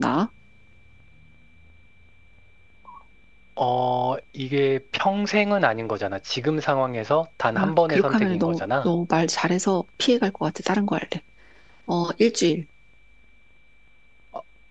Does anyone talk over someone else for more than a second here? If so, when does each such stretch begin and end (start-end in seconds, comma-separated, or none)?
7.5-8.9